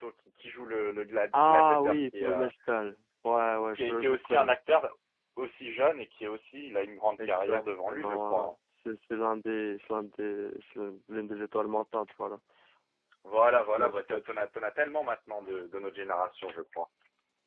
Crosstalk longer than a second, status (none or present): present